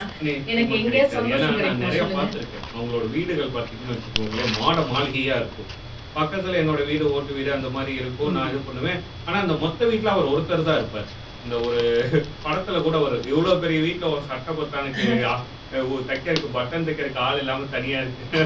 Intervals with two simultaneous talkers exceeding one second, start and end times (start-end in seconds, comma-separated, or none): 0.6-2.3